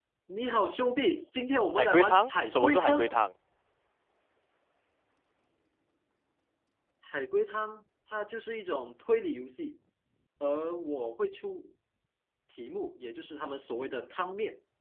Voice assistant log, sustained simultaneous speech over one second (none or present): present